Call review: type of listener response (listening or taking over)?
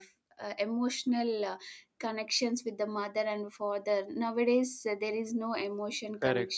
taking over